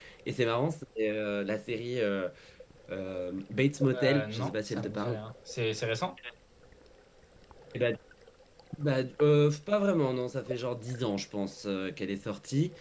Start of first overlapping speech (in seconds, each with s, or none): 3.9 s